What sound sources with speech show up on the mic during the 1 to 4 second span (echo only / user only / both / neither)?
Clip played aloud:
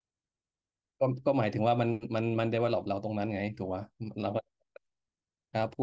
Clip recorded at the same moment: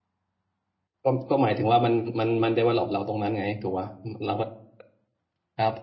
echo only